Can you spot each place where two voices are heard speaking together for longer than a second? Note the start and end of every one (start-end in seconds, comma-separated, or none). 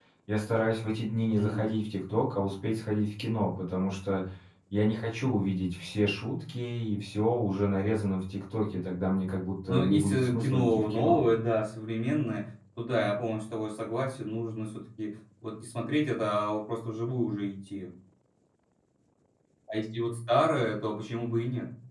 9.7-11.2